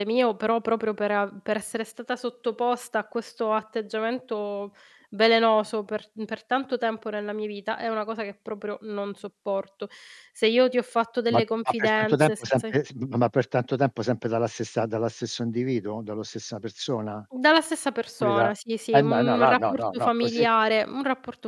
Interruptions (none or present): present